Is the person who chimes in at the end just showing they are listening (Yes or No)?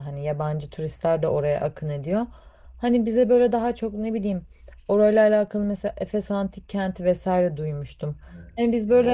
Yes